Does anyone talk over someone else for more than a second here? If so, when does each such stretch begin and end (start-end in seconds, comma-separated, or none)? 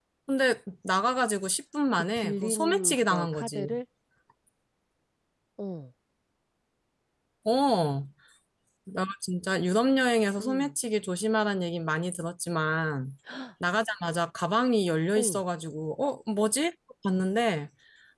1.9-3.7